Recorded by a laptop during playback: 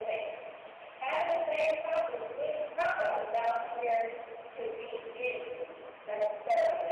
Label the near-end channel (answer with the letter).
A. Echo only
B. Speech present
A